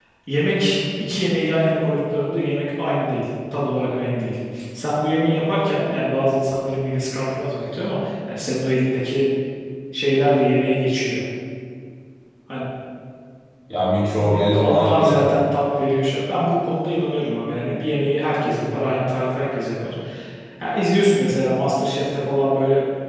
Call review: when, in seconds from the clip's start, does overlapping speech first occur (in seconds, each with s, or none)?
14.0 s